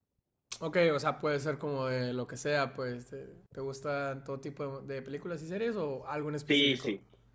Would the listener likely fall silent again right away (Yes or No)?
No